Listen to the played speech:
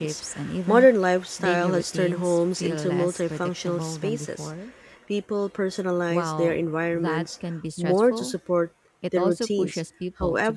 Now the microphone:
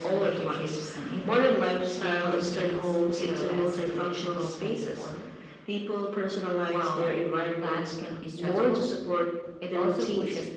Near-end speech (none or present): none